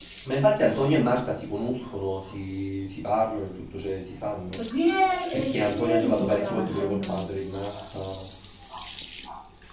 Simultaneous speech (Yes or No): Yes